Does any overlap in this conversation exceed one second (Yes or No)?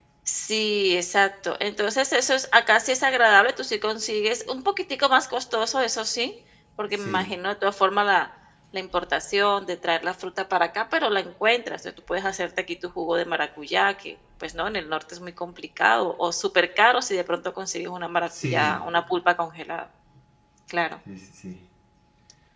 No